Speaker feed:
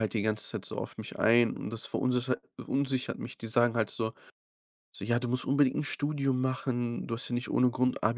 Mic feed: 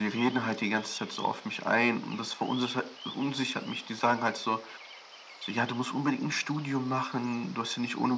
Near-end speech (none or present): none